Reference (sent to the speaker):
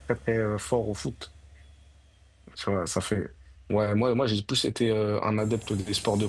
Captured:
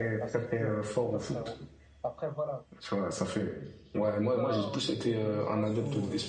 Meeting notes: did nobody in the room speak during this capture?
No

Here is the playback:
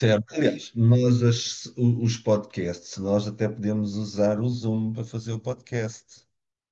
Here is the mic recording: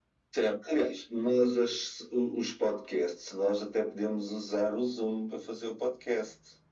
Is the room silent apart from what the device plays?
Yes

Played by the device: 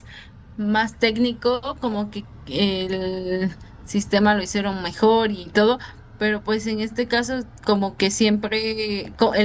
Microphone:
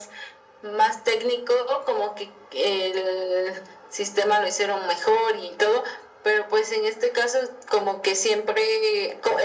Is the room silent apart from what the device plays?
Yes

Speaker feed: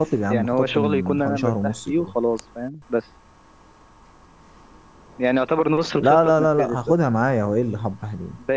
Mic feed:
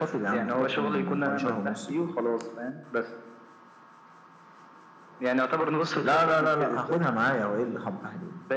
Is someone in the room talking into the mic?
No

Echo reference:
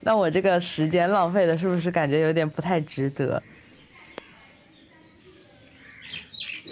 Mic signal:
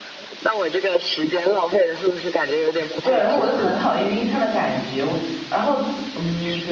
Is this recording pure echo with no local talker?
No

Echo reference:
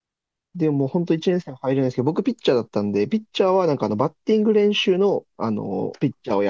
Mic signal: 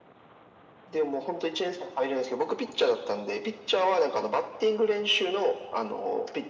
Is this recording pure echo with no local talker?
Yes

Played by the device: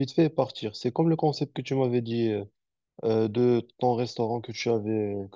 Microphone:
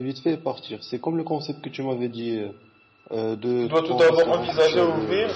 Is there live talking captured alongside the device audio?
Yes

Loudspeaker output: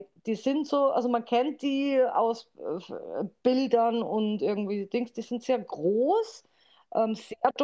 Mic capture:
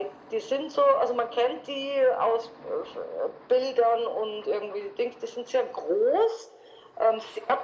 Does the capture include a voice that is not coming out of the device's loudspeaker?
No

